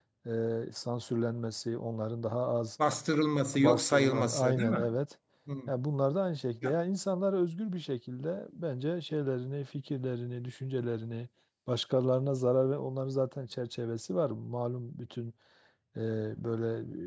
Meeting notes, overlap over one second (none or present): present